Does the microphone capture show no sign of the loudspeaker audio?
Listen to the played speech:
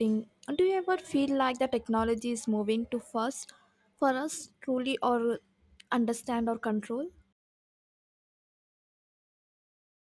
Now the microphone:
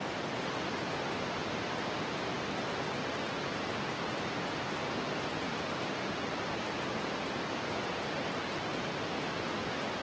Yes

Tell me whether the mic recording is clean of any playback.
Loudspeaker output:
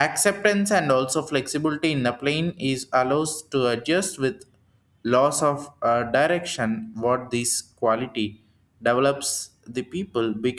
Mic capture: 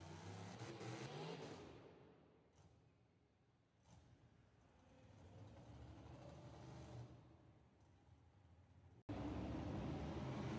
Yes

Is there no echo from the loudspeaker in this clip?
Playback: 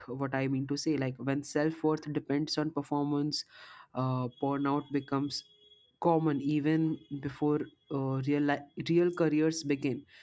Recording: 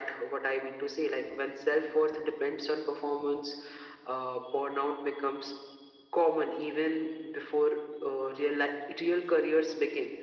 No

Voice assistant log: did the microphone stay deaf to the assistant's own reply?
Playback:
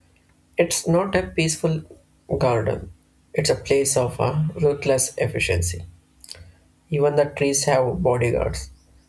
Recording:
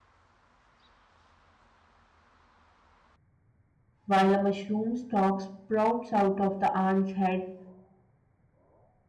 Yes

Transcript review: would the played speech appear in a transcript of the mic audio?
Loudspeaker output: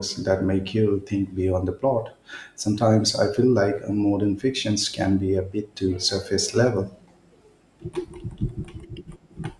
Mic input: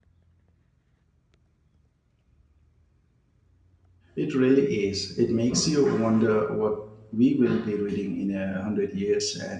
No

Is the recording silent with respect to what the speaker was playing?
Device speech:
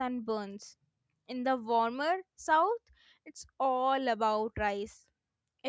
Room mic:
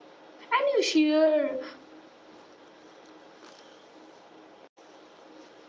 Yes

